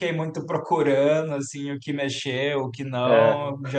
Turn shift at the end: No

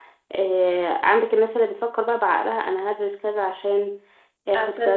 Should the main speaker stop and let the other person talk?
Yes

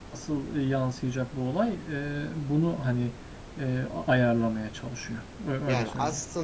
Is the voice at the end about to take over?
Yes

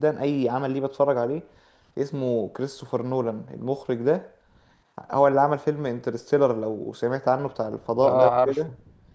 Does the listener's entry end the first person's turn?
Yes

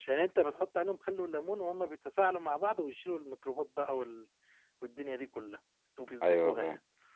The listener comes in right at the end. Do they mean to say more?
Yes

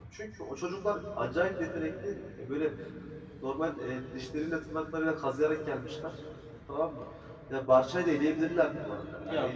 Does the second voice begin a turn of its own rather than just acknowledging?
Yes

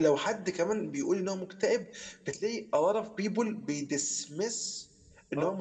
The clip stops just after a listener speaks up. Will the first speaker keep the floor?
Yes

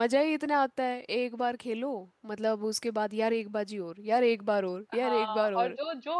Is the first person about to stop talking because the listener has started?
Yes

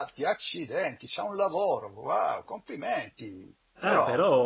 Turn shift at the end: Yes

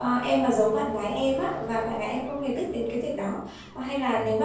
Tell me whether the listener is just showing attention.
Yes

